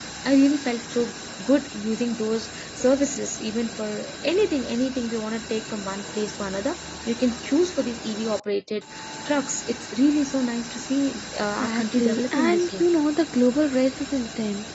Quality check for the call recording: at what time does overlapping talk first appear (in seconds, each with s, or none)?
11.6 s